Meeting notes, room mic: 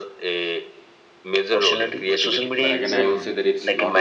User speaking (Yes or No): Yes